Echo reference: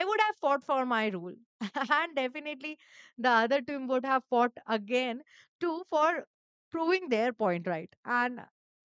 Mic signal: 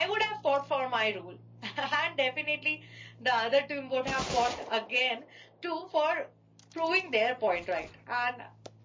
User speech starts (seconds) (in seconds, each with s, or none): none